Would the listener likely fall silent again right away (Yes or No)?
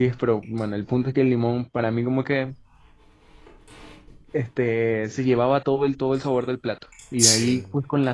Yes